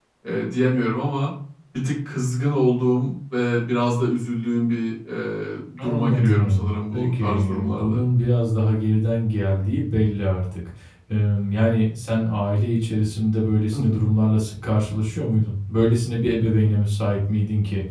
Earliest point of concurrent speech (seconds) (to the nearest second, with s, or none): 6 s